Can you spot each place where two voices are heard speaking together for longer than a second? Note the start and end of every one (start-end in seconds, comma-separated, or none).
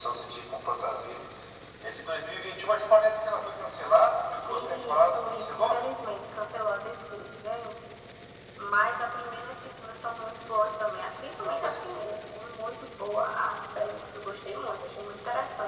4.5-5.8